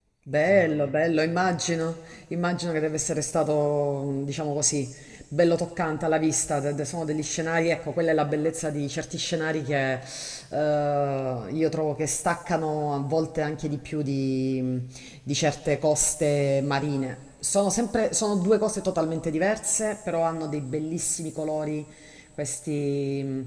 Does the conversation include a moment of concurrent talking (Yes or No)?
No